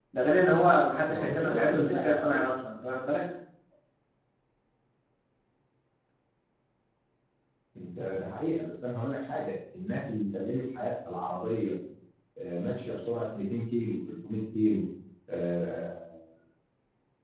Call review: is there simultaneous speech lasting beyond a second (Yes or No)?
Yes